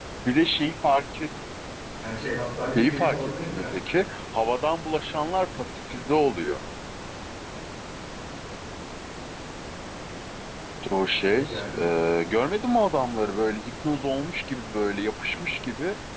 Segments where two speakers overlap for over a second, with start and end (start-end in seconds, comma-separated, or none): 2.8-4.1